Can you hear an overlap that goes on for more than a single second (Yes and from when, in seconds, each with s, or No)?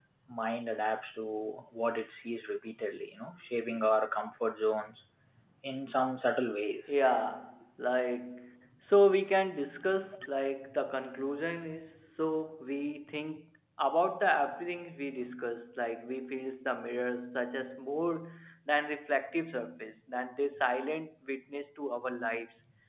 No